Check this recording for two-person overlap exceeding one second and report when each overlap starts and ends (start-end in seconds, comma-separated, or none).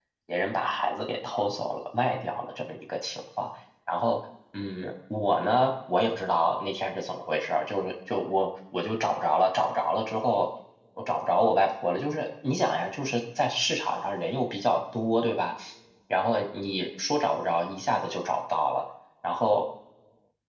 none